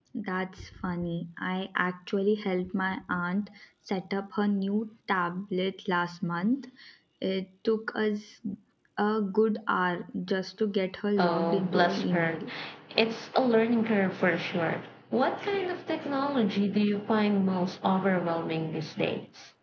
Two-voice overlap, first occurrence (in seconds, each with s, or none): 11.2 s